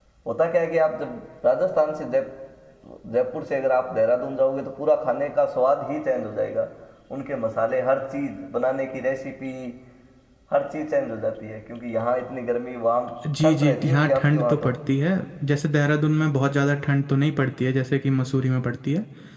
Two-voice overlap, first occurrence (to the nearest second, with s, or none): 13 s